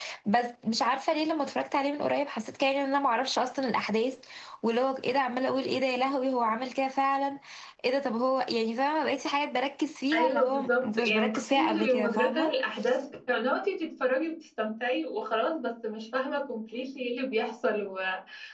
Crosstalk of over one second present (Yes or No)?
Yes